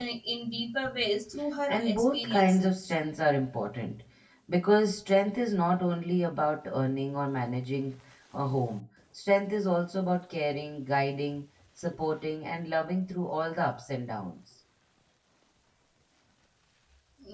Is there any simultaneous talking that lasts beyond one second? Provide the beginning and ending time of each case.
1.7-2.9

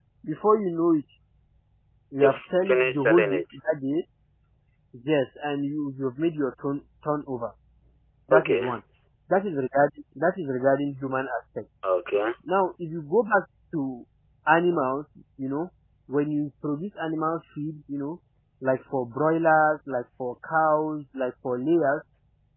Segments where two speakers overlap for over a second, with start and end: 2.2-3.4

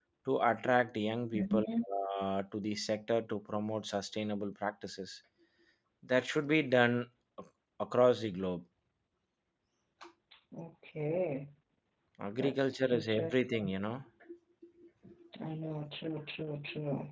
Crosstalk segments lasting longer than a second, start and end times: 12.4-13.7

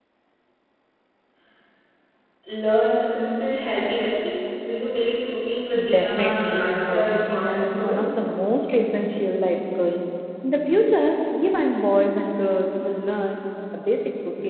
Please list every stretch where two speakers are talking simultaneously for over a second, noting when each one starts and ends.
5.9-8.4

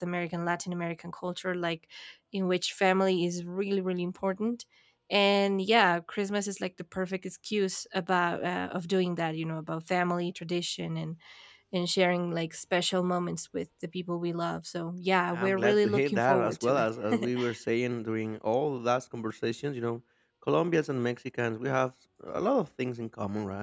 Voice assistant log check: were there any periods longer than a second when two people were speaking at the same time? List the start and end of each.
15.3-16.8

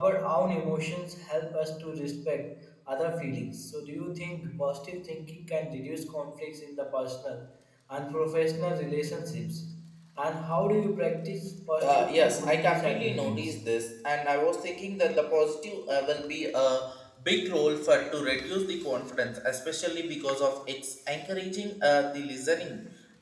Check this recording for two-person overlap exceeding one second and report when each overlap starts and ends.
11.8-13.6

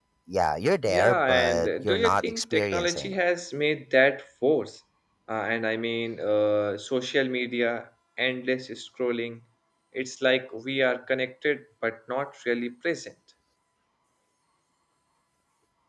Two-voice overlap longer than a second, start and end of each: 0.9-3.1

